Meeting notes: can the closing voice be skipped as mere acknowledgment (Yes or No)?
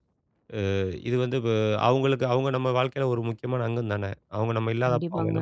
No